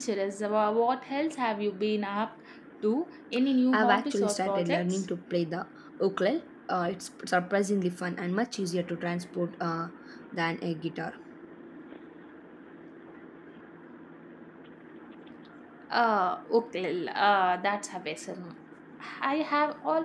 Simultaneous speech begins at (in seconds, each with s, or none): 3.7 s